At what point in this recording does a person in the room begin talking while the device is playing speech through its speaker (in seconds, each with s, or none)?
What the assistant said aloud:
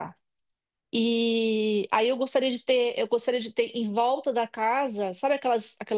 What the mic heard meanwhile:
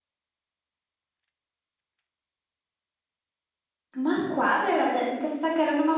4.0 s